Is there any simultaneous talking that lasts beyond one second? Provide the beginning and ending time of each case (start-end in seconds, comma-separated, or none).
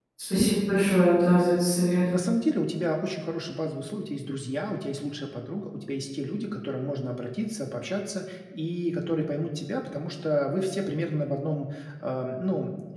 none